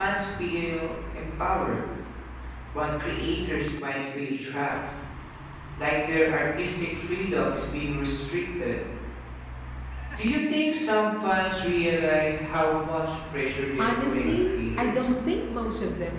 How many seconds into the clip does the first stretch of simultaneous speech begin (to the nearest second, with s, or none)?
14 s